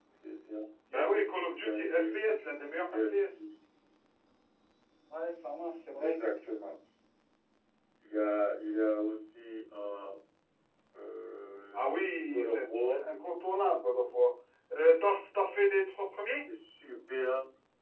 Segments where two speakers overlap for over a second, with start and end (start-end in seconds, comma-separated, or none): 0.9-2.3, 11.7-13.0